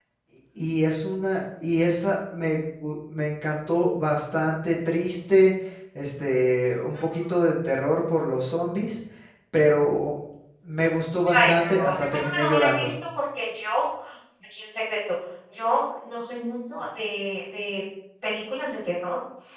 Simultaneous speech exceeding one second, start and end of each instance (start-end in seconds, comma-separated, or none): 11.3-12.9